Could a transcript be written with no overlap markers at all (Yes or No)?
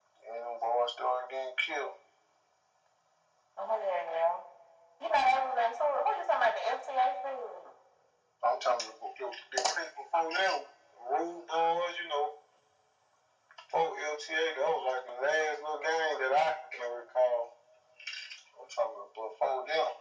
Yes